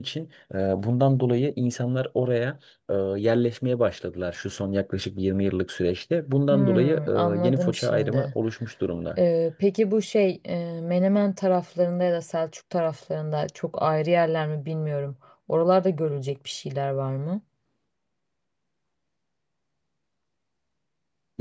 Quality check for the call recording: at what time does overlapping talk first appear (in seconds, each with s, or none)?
6.5 s